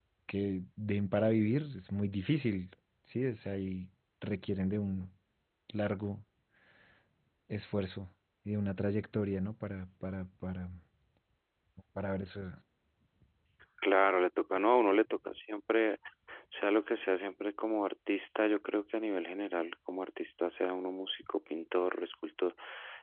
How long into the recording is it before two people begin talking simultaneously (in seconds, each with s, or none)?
none